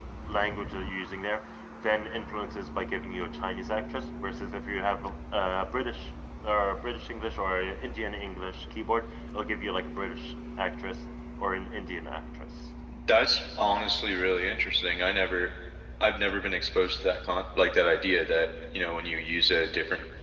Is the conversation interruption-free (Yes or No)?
Yes